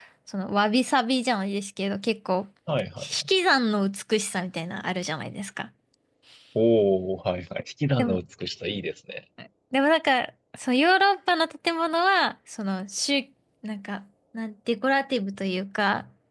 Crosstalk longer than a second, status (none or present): none